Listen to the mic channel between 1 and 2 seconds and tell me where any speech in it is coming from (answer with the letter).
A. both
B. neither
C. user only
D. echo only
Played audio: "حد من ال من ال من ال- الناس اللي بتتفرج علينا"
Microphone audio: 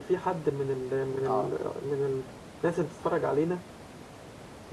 A